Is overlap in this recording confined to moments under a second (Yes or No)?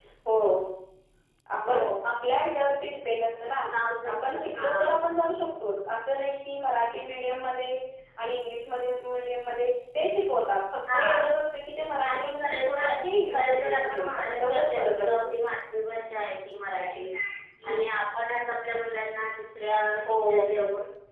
No